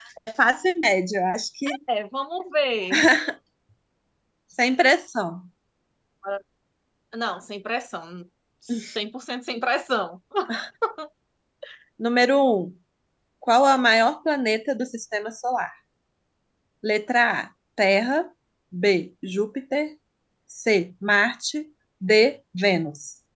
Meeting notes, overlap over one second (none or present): none